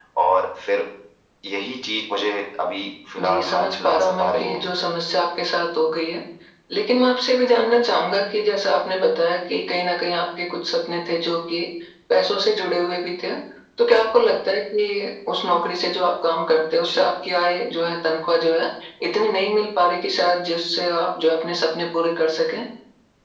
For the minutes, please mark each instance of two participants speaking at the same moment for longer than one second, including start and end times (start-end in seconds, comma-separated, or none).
3.2-4.7